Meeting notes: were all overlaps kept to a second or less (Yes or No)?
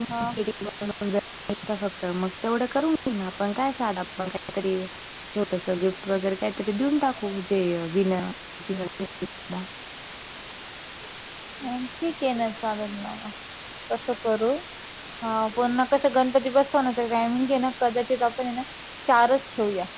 Yes